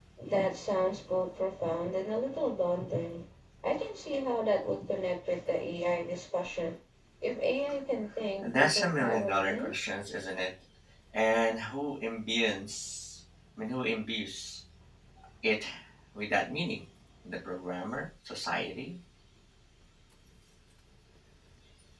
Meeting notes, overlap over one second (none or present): present